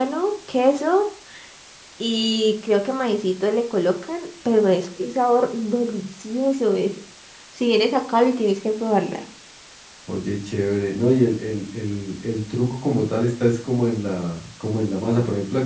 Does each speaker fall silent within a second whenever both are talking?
Yes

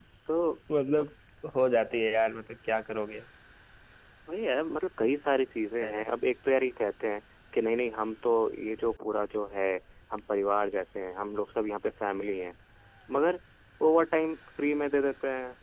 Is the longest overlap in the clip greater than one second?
No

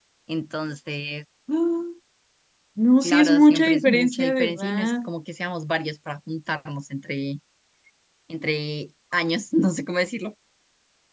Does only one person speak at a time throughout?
No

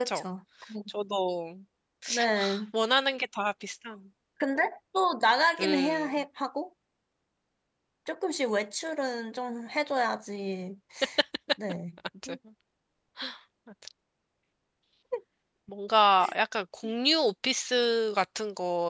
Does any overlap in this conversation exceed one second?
No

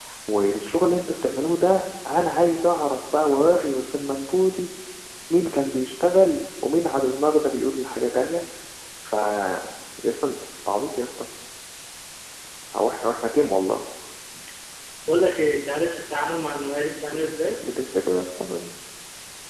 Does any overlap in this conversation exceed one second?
No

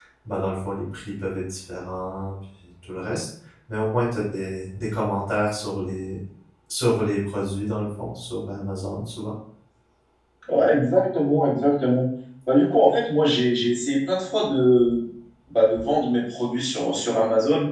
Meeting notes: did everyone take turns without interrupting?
Yes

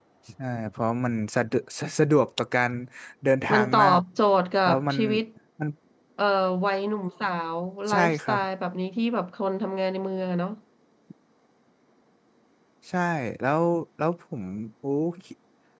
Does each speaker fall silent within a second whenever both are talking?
Yes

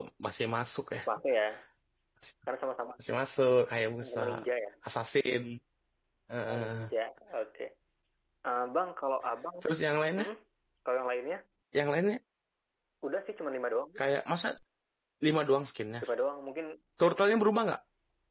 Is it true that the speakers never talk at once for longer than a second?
Yes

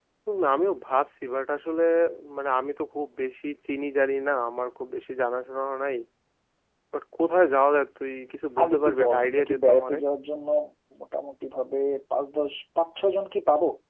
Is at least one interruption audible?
Yes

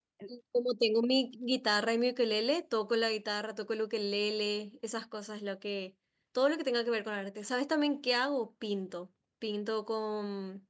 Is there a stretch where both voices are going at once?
No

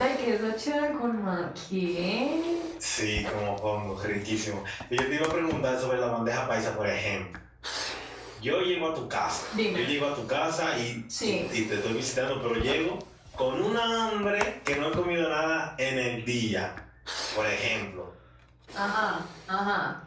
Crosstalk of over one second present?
No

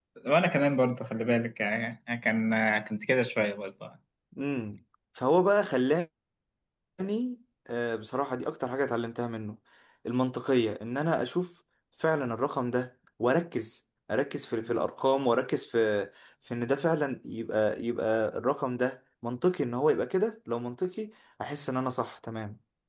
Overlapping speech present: No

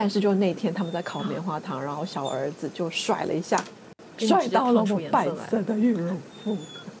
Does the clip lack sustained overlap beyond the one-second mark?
No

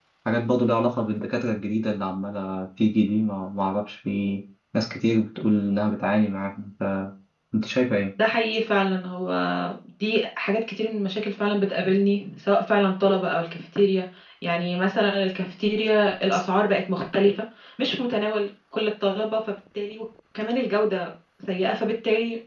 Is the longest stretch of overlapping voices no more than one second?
Yes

